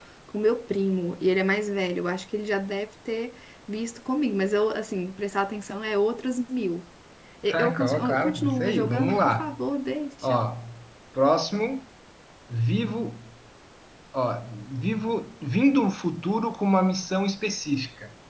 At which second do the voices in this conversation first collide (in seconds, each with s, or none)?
7.5 s